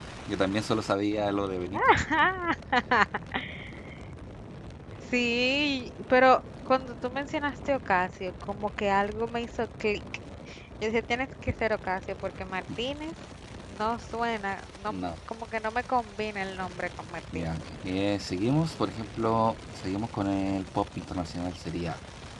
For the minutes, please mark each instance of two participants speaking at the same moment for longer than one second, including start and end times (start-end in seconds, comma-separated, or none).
none